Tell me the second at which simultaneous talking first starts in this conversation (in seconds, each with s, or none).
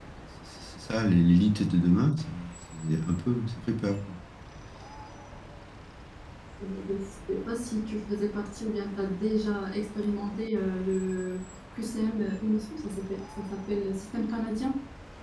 none